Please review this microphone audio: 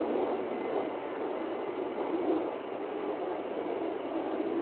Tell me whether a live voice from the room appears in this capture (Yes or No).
No